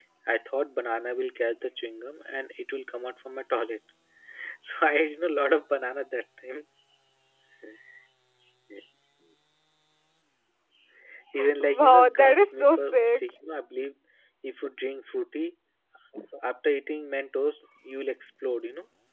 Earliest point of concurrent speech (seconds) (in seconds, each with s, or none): 11.8 s